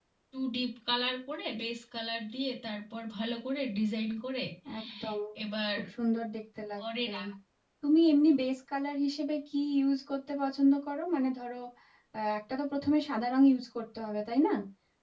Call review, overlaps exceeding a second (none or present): none